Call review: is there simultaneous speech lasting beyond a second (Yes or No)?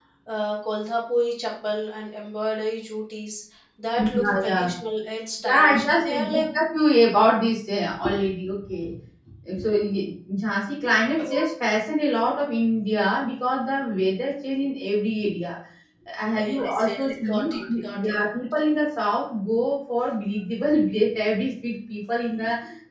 Yes